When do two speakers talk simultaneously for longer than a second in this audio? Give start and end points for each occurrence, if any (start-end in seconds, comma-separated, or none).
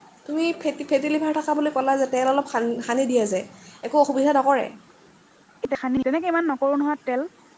none